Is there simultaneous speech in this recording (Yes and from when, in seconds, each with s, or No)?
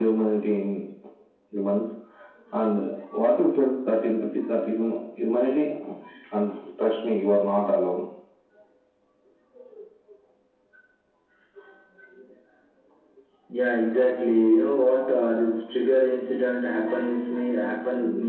No